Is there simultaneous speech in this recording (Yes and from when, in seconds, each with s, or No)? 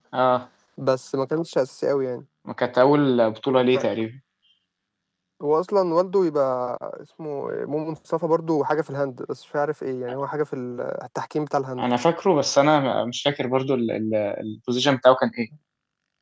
No